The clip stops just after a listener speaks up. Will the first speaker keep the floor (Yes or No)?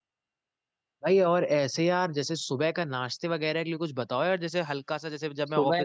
No